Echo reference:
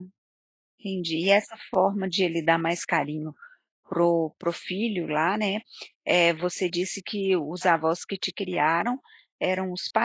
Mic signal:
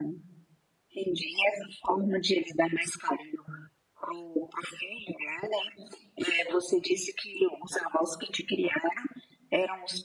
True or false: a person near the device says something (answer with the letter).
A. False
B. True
A